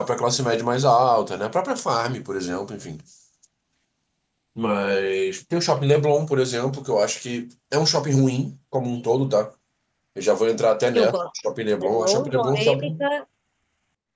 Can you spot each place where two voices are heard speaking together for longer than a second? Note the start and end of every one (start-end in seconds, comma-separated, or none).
11.8-13.1